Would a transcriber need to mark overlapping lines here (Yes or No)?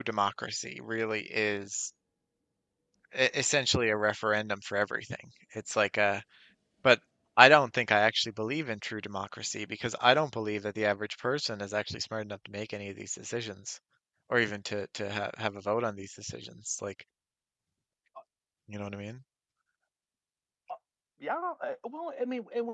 No